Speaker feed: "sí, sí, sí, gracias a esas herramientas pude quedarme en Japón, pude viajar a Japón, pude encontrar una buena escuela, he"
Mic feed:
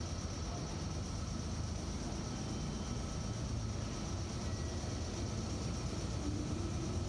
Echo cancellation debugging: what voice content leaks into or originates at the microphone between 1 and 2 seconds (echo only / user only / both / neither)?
neither